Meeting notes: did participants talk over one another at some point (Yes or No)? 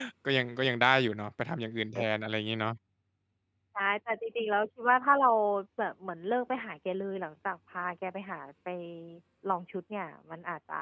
No